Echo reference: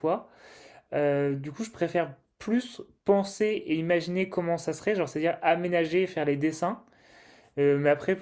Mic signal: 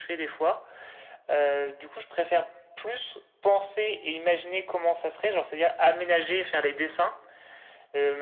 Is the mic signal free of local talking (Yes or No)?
Yes